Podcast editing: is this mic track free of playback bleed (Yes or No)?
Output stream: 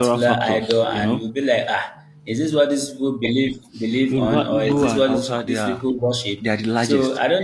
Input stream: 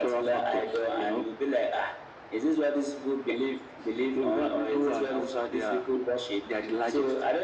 No